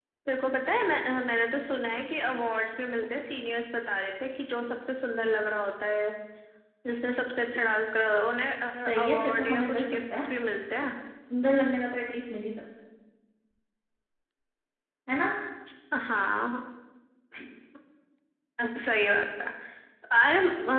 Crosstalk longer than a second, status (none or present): present